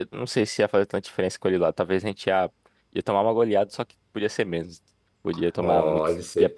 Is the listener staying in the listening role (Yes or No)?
No